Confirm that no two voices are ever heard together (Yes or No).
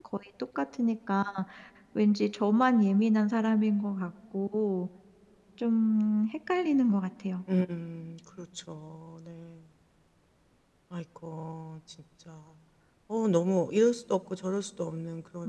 Yes